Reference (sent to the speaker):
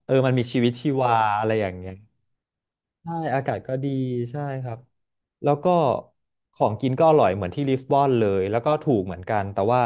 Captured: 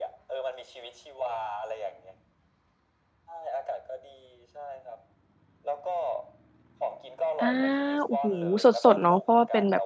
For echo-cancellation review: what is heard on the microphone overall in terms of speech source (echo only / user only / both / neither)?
both